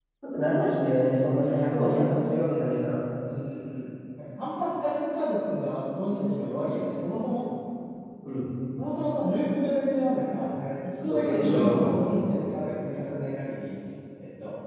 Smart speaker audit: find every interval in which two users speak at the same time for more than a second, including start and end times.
11.1-12.3

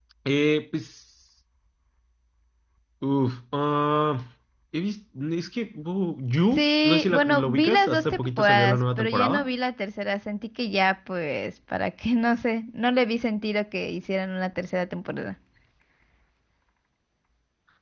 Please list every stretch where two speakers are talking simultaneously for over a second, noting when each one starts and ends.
6.5-9.4

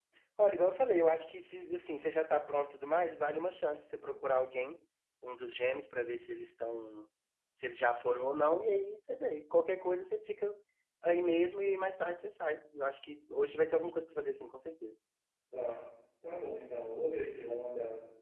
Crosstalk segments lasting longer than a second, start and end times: none

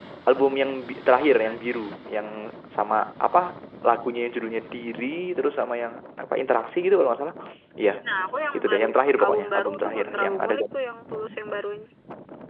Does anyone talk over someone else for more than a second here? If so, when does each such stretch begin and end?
8.5-10.8

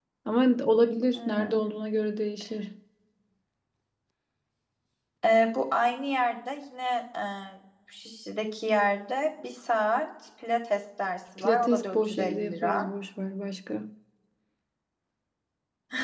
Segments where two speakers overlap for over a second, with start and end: 11.4-12.9

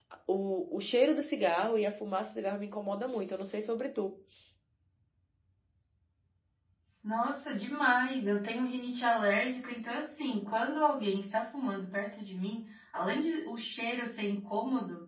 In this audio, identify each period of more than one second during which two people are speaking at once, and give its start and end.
none

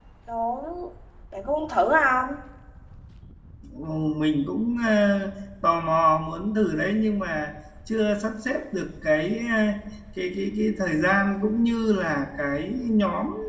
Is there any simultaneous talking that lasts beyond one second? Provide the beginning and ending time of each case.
none

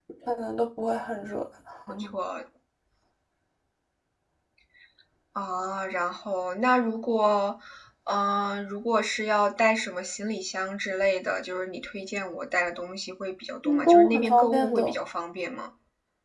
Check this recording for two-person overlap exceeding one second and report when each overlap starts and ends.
13.7-14.9

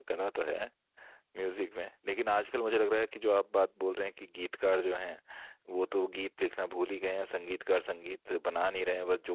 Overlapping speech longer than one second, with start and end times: none

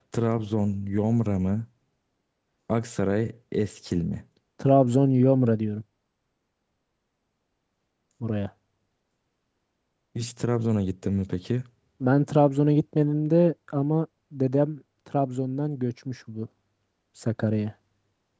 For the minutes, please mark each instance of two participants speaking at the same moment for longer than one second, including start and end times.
none

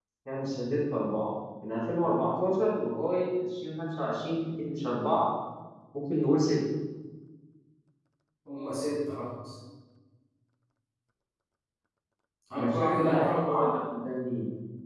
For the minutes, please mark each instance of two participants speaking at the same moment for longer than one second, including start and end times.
12.5-13.8

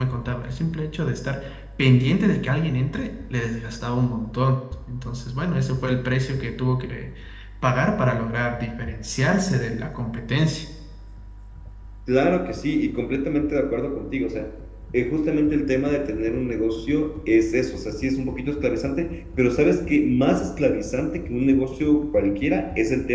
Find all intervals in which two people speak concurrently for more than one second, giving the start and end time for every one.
none

